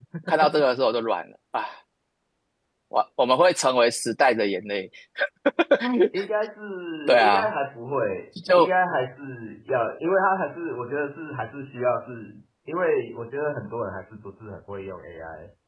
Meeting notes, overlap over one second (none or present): none